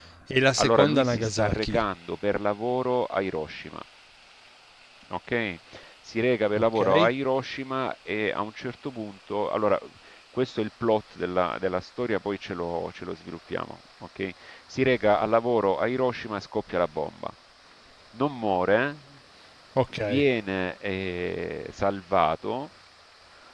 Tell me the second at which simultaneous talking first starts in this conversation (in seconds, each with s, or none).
0.6 s